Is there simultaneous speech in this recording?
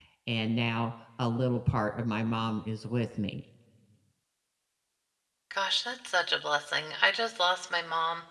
No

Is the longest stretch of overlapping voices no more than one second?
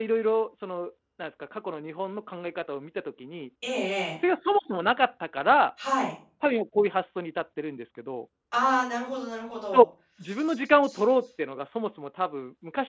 Yes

